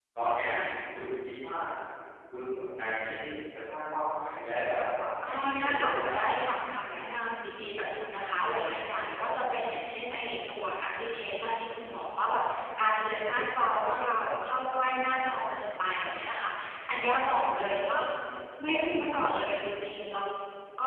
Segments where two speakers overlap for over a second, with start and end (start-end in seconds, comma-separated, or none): 5.3-6.5